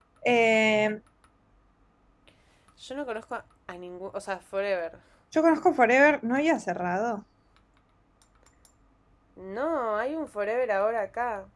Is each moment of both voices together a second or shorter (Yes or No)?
Yes